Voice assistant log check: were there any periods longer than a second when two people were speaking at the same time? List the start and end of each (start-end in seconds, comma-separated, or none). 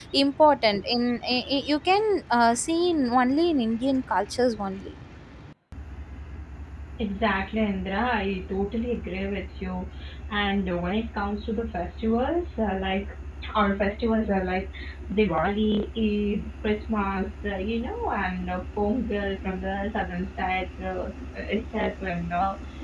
none